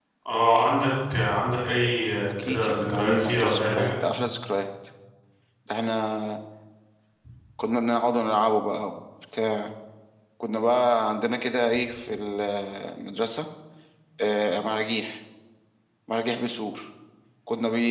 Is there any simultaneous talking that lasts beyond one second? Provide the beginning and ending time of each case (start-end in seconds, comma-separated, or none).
2.4-3.9